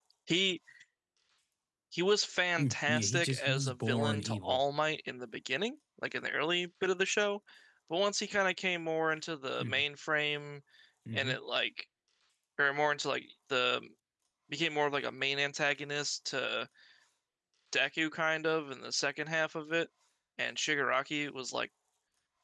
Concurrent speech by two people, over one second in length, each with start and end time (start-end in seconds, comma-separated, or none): 2.6-4.6